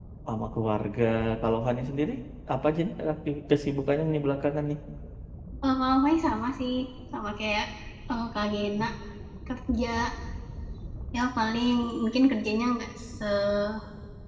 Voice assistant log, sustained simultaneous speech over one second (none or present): none